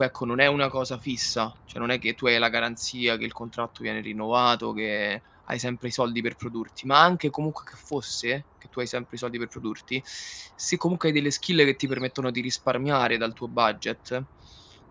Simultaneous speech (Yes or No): No